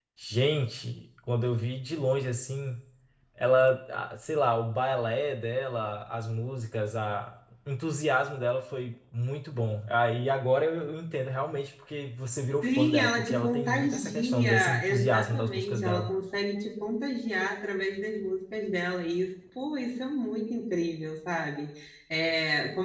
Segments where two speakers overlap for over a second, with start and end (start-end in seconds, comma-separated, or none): 12.6-16.1